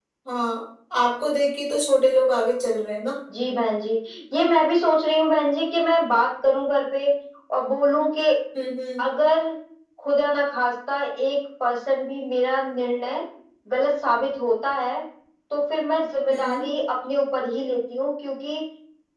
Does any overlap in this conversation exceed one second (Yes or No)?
No